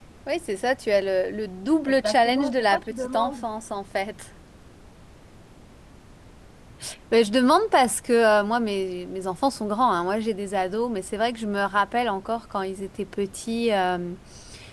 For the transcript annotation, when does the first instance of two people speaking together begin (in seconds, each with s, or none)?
1.9 s